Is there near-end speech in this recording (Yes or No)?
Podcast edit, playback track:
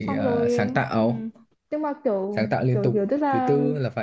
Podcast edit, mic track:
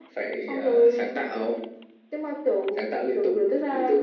No